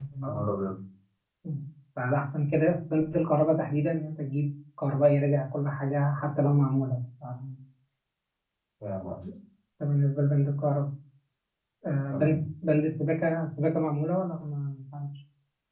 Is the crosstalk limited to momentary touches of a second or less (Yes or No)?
Yes